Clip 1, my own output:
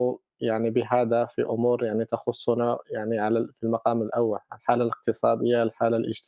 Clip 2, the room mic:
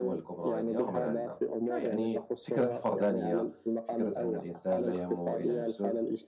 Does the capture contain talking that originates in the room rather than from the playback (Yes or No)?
Yes